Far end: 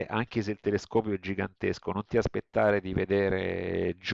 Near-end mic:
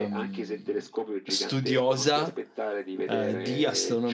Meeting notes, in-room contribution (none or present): present